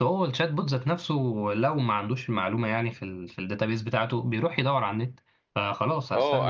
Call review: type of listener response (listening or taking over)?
taking over